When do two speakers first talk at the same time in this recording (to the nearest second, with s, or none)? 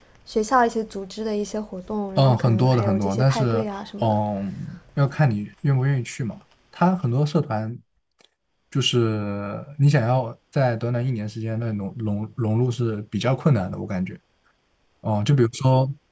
2 s